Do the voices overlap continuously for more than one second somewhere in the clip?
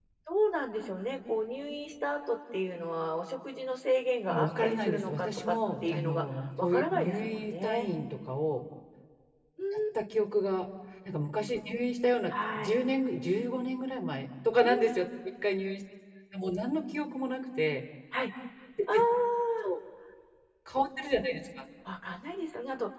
Yes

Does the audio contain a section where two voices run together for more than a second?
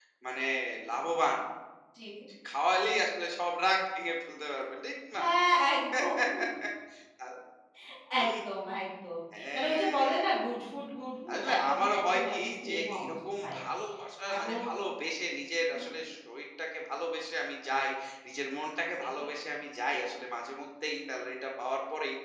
Yes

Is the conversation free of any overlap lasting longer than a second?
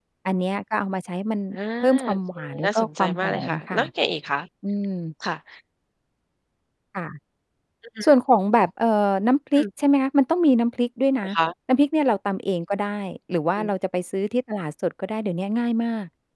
No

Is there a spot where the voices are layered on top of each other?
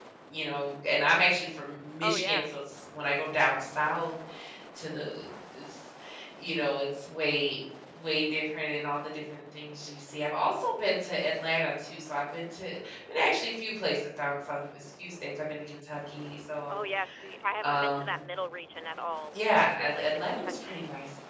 Yes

